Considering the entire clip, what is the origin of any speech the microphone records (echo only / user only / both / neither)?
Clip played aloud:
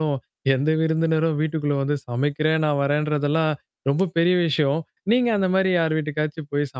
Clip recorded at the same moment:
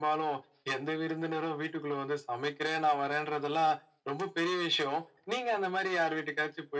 echo only